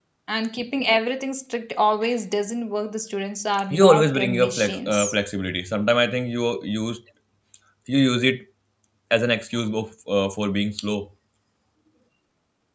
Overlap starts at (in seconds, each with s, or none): 3.7 s